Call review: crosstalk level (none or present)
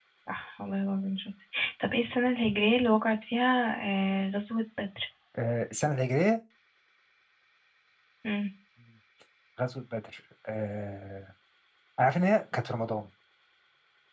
none